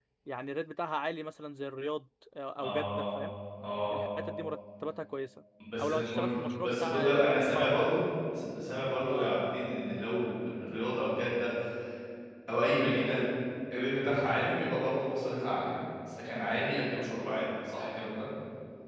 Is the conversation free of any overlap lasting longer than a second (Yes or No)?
No